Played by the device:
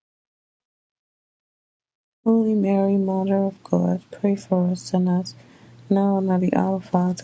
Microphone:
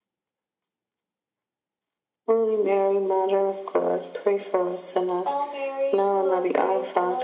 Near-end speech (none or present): present